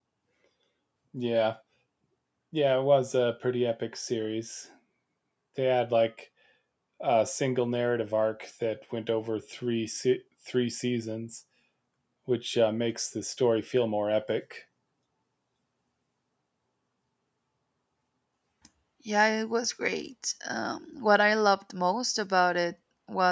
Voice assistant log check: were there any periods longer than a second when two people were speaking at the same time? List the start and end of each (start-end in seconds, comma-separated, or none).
none